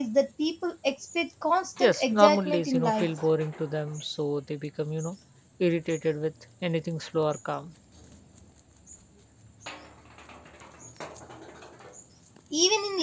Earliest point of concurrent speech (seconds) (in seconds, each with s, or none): 1.8 s